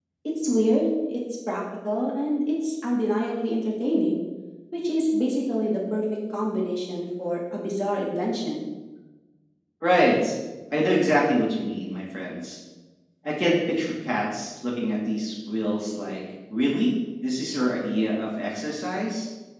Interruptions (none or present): none